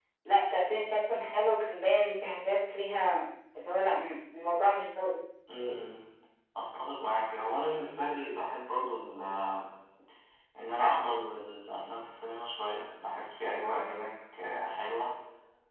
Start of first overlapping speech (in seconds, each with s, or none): none